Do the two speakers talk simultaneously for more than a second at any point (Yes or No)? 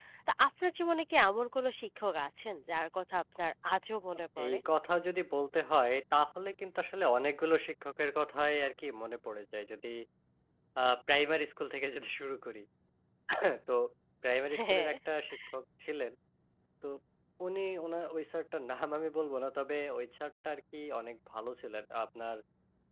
No